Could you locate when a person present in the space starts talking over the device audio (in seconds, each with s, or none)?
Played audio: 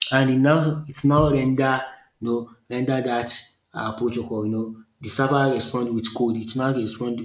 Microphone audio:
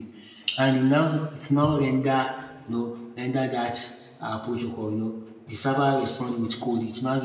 none